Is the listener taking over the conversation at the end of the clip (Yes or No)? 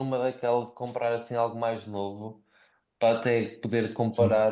No